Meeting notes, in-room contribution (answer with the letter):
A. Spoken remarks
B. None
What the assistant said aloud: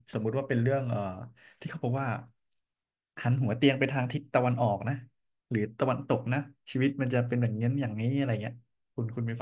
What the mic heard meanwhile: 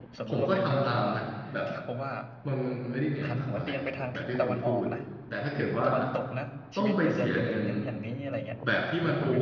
A